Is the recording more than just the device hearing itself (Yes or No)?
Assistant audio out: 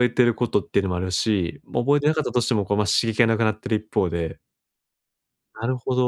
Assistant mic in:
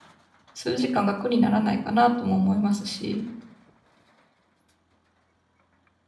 Yes